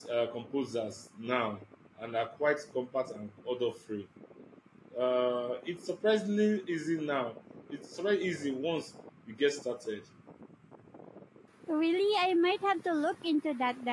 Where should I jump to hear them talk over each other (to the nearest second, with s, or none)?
none